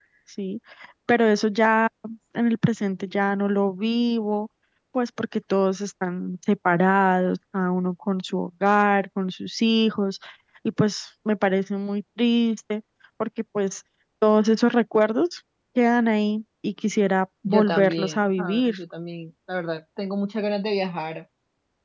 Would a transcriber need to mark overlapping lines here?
Yes, from 17.4 s

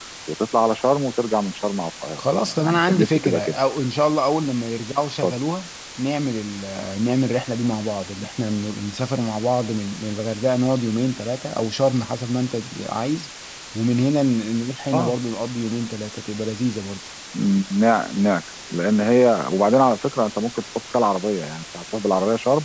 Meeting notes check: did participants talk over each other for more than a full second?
Yes, from 2.2 s

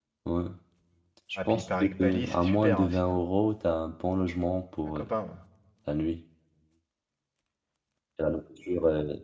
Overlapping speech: Yes, from 1.4 s

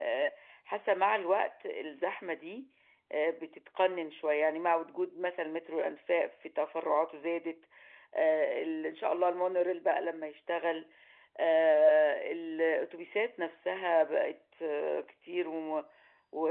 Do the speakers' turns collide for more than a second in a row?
No

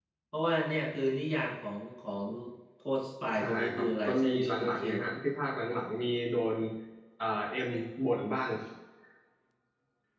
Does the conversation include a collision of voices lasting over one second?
Yes, from 3.4 s

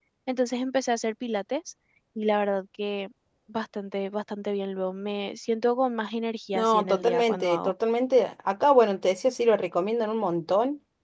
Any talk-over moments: Yes, from 6.5 s

